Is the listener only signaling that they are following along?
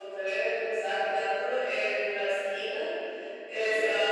Yes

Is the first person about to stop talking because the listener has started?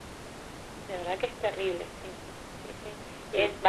No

